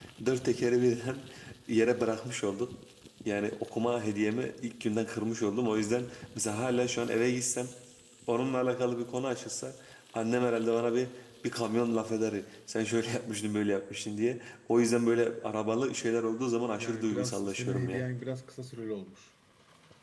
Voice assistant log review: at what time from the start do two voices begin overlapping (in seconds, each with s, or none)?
16.8 s